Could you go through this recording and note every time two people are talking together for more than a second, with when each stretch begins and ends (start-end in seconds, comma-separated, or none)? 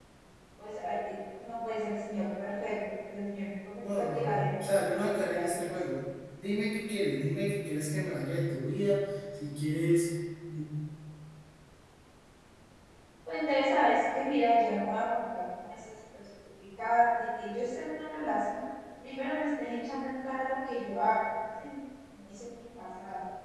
3.8-5.7